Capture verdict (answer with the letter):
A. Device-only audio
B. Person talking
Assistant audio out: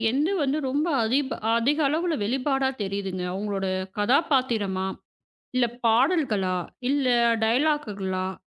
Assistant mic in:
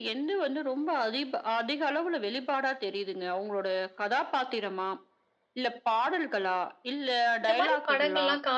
B